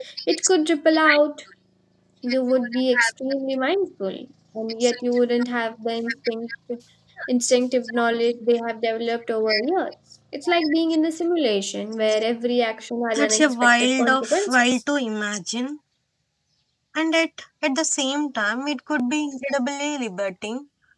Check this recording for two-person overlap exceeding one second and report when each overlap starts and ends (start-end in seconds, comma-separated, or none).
13.1-14.6